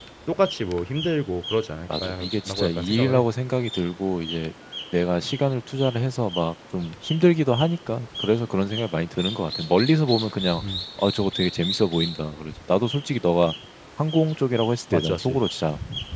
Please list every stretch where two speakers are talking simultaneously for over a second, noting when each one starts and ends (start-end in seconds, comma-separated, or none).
2.0-3.2